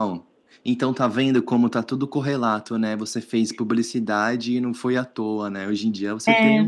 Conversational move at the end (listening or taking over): listening